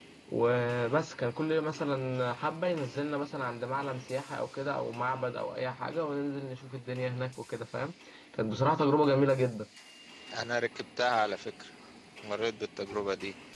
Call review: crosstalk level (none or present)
none